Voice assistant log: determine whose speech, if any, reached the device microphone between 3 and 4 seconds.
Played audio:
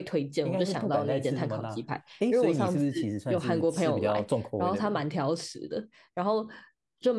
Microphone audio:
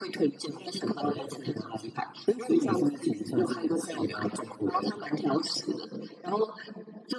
echo only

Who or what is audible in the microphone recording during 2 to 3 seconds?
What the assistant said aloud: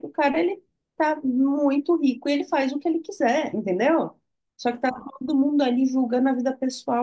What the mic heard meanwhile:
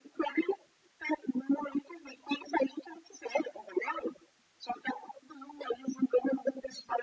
echo only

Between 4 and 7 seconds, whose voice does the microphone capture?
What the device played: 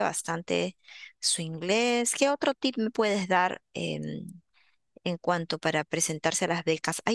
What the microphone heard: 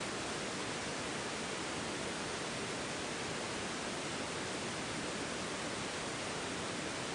neither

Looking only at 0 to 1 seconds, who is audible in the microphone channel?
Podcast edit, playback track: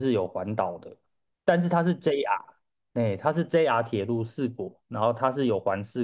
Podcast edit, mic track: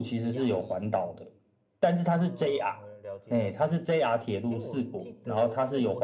both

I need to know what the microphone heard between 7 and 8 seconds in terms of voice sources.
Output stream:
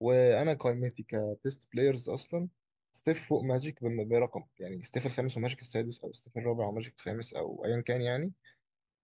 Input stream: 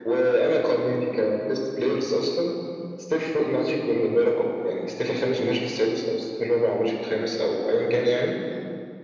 echo only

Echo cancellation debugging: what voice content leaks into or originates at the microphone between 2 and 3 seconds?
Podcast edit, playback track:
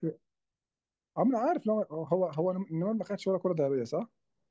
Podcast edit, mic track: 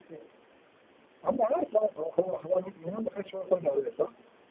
echo only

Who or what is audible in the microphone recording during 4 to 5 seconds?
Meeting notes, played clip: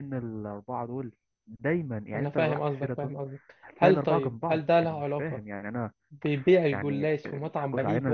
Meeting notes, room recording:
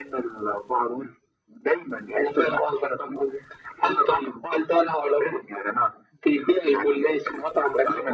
echo only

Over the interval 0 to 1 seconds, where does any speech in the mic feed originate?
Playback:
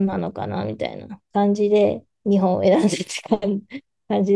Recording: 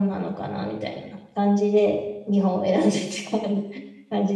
echo only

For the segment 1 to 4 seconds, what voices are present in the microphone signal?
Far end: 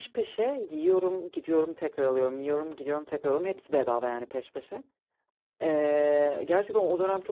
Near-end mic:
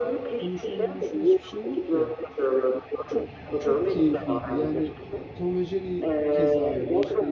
both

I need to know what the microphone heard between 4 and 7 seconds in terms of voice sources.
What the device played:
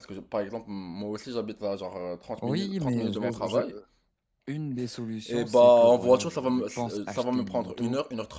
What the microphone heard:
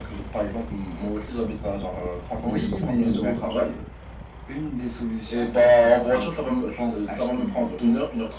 echo only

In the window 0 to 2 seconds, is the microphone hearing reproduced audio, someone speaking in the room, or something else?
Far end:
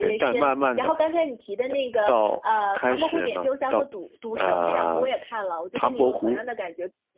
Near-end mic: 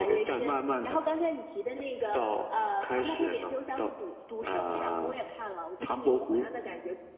echo only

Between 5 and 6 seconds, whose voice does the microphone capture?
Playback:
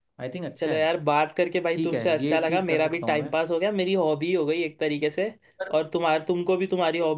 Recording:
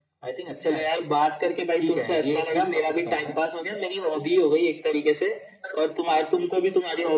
echo only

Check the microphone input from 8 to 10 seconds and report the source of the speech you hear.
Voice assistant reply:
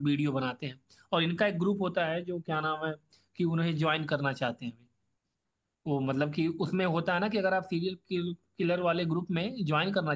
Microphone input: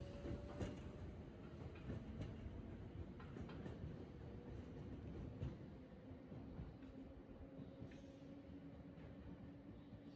neither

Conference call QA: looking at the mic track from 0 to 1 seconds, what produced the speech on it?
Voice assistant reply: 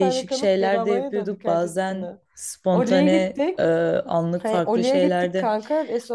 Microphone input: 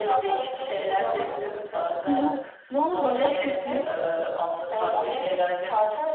echo only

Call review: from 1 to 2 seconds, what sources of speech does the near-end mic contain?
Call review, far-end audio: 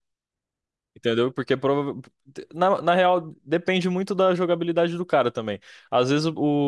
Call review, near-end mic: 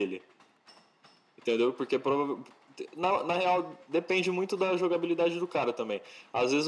echo only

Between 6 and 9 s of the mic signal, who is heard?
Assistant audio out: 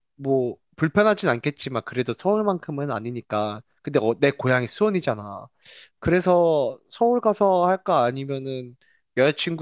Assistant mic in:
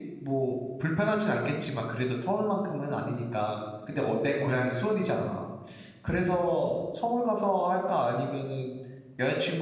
echo only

